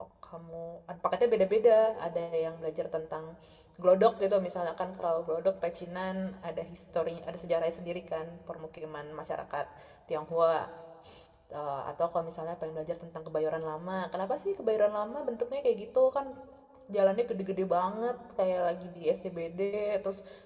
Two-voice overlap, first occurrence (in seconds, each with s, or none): none